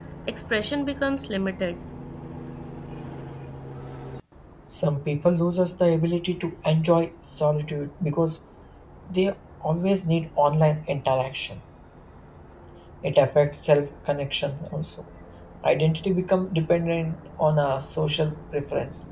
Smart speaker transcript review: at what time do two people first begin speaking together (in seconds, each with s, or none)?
none